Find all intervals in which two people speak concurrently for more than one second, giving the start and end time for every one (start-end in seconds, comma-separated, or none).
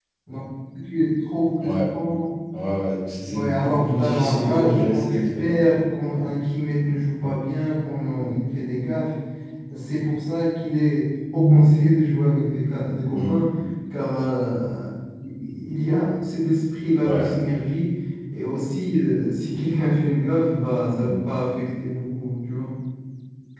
3.3-5.6